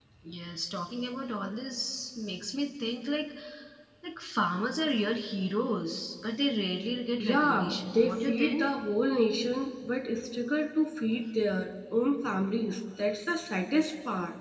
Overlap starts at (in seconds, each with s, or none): 7.2 s